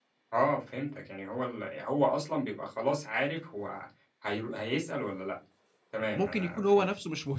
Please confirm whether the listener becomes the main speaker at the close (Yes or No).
Yes